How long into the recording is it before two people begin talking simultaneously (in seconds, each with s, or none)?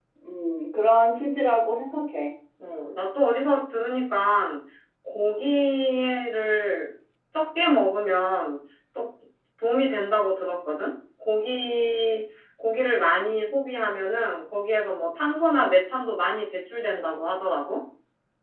none